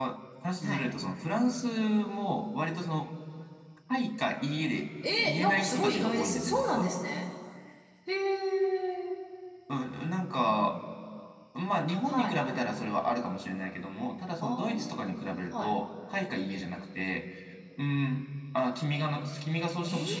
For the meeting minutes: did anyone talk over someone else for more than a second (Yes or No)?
Yes